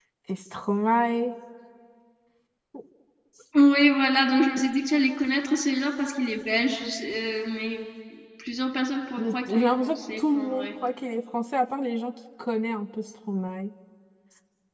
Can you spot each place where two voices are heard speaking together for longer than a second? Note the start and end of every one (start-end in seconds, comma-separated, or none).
9.2-10.7